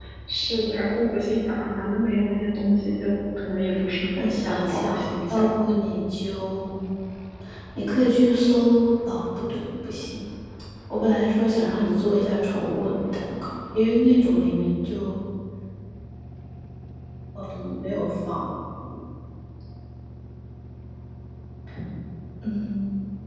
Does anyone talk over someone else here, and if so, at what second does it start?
4 s

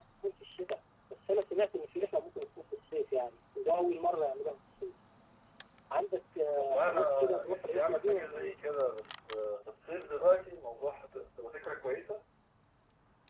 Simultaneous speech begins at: 7 s

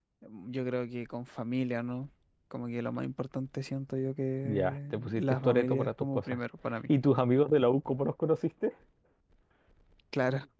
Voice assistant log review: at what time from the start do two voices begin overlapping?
4 s

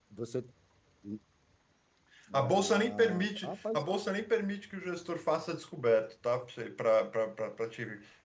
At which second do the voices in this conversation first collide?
2 s

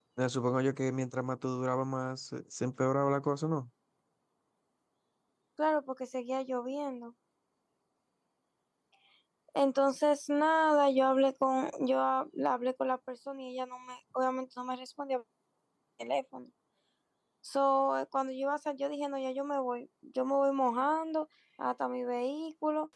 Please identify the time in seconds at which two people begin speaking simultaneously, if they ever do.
none

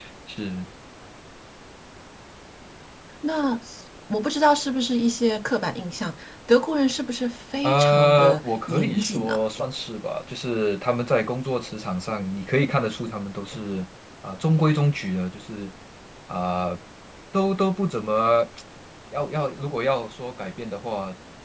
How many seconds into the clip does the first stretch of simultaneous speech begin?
8 s

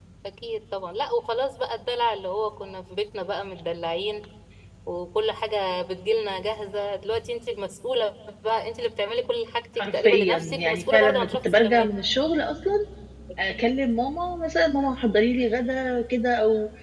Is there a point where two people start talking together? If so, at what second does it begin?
10 s

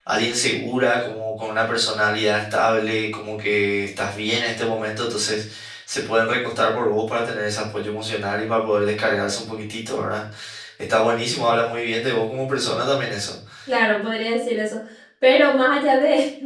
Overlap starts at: none

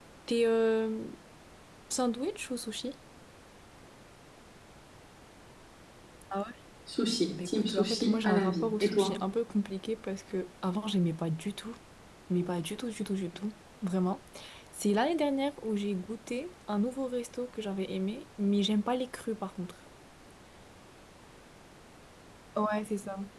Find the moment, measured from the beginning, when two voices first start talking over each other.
7 s

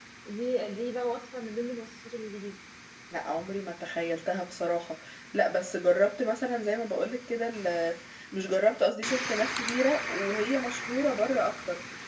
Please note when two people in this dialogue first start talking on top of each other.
none

